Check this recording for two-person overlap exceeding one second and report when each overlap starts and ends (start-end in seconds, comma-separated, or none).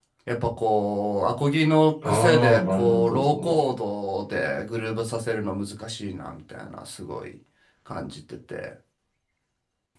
2.0-3.5